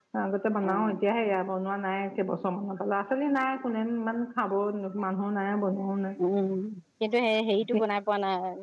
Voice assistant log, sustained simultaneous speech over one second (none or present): none